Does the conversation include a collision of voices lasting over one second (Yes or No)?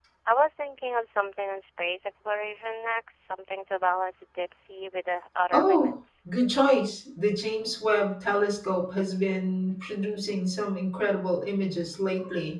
No